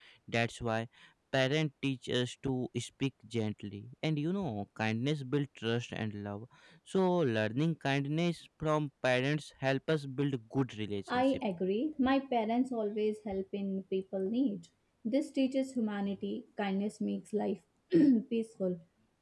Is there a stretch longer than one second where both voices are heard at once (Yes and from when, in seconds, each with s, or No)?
No